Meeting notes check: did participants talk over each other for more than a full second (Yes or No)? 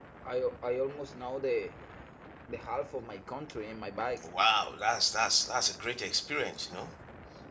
No